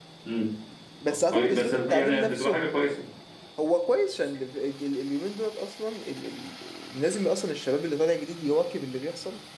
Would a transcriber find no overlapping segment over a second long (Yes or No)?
No